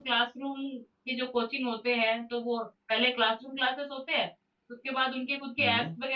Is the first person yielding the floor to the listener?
No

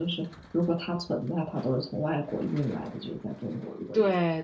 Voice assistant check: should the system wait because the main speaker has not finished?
No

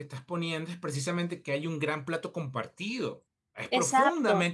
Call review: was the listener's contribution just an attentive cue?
No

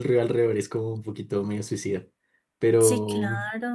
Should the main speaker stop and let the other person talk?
Yes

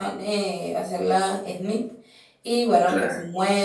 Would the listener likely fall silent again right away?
Yes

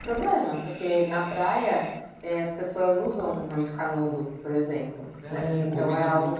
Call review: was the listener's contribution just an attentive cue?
No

